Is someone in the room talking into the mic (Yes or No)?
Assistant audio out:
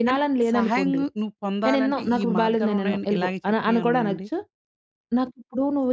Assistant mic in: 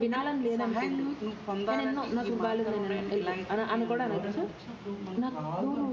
Yes